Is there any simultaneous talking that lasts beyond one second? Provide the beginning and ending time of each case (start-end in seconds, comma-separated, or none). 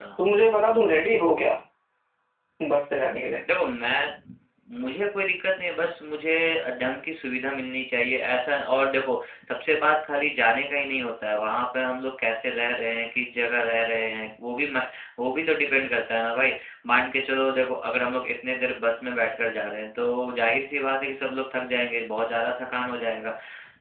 none